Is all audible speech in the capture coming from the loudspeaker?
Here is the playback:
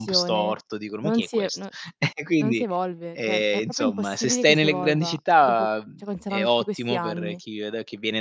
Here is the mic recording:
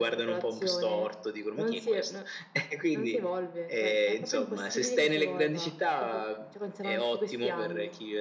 Yes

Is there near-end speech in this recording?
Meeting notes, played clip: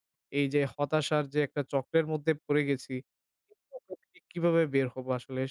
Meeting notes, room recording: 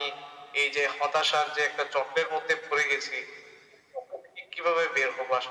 No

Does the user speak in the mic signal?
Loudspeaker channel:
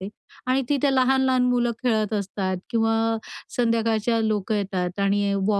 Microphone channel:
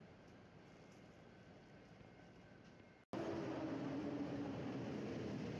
No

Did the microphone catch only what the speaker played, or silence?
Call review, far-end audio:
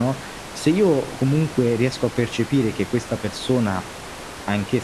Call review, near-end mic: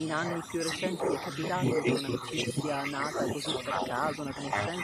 No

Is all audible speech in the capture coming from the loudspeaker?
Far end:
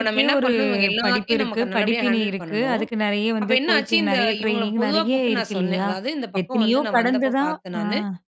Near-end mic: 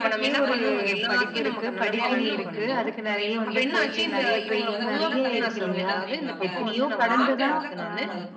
No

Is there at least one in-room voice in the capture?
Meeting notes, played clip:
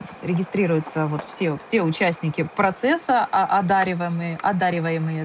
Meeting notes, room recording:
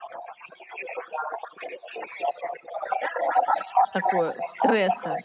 Yes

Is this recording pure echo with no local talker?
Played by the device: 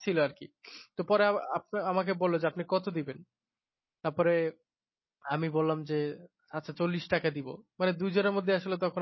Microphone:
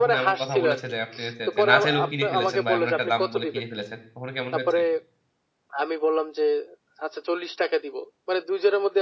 No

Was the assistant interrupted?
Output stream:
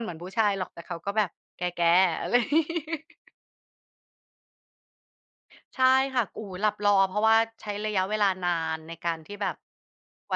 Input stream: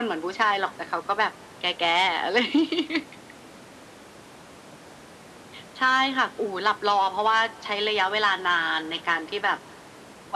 No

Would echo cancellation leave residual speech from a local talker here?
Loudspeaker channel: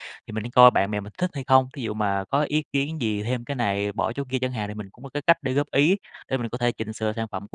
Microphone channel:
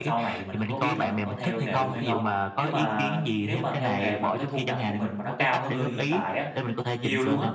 Yes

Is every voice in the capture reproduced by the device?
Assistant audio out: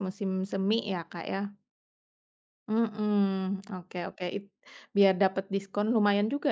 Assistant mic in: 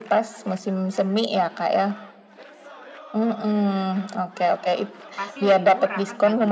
No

